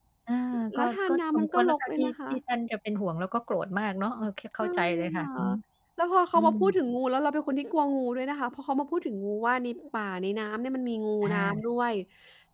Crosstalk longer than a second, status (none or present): present